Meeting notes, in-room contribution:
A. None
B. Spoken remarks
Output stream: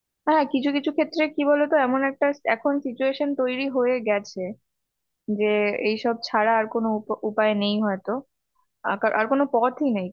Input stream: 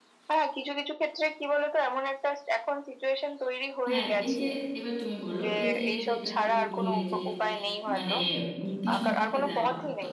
B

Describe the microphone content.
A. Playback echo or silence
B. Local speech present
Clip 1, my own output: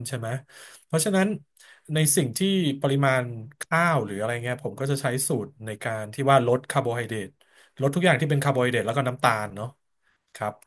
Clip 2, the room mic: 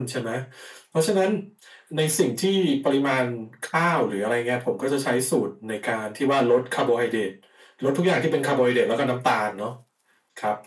A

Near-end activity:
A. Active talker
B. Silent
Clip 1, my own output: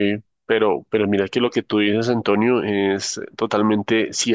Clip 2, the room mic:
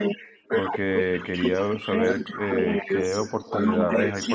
A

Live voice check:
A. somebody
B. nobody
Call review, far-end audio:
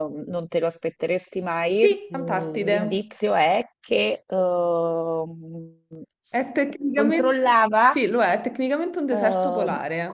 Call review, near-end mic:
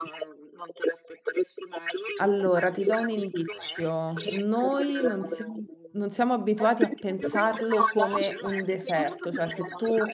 A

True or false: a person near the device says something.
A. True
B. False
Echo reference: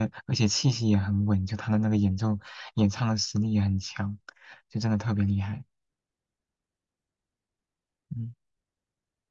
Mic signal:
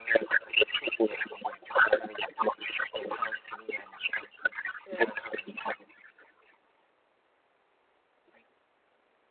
A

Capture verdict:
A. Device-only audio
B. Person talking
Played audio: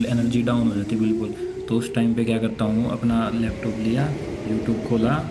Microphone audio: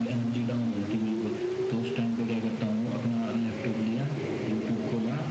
A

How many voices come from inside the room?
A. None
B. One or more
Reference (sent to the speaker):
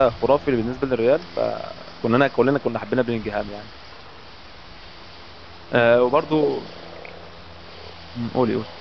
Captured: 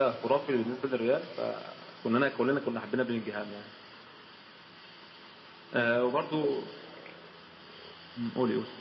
A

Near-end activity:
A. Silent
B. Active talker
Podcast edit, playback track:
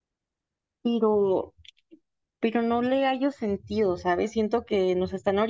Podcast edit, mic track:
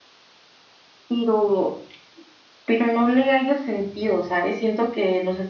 A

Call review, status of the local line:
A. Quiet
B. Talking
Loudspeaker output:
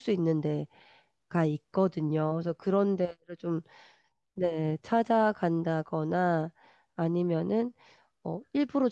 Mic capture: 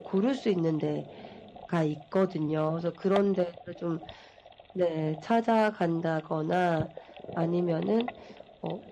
A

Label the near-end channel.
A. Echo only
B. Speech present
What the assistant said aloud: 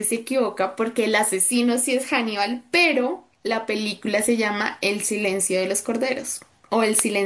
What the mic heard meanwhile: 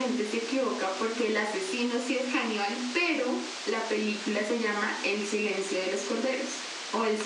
A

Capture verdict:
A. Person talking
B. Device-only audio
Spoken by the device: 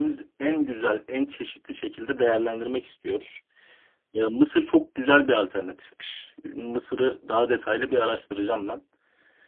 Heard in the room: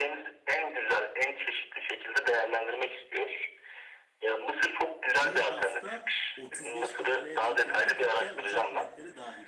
A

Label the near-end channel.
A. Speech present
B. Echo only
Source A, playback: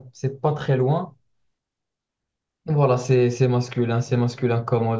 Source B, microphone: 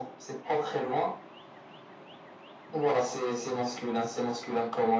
B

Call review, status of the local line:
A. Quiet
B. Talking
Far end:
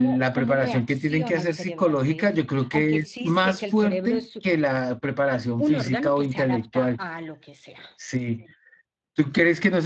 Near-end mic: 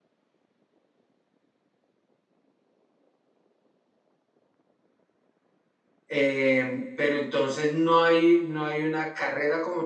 B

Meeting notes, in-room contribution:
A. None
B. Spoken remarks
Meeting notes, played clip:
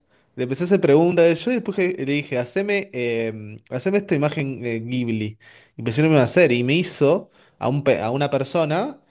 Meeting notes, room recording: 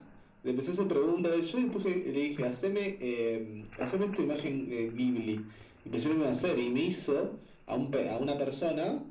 A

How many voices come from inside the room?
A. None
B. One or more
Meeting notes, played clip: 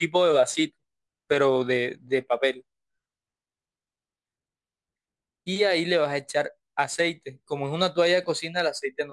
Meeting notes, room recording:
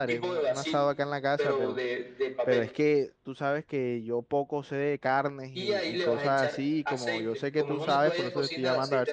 B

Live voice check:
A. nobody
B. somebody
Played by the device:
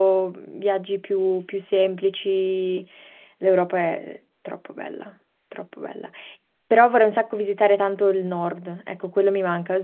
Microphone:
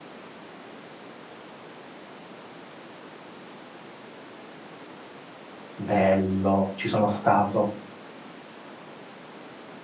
B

